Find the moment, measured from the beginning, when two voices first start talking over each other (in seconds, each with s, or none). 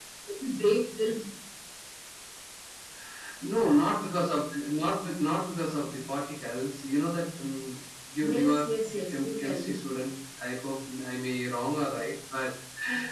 8.2 s